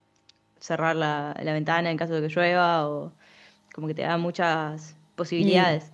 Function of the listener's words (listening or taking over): taking over